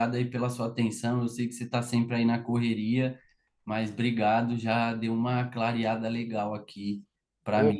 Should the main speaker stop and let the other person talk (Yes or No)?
Yes